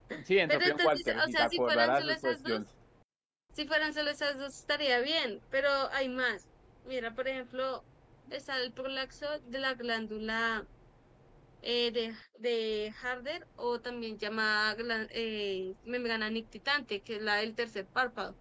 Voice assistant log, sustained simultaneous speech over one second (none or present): present